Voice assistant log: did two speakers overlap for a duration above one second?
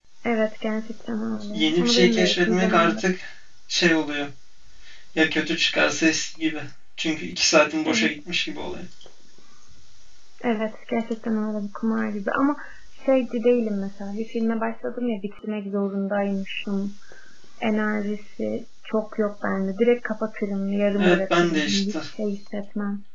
Yes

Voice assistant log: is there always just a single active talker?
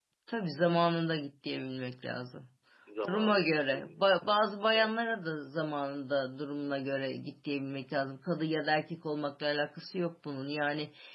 No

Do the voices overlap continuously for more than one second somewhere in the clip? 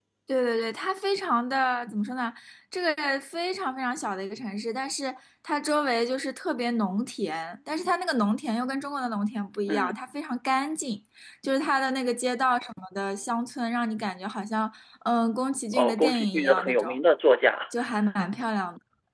Yes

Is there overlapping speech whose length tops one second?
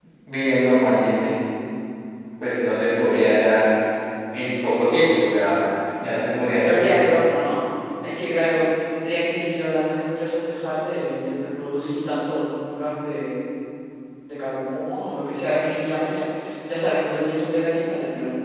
No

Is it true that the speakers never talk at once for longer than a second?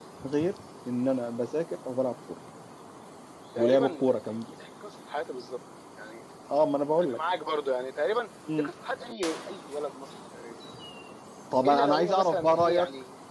No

